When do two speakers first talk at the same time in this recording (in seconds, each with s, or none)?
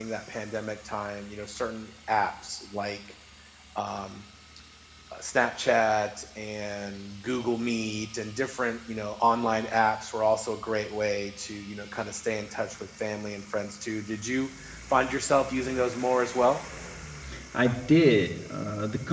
none